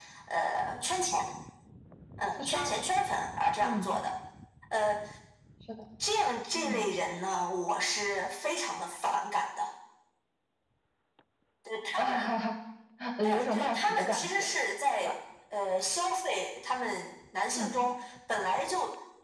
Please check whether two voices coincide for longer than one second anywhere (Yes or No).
Yes